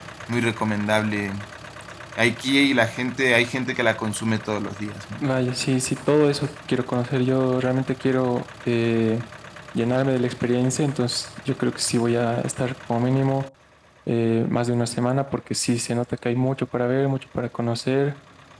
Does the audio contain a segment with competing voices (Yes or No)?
No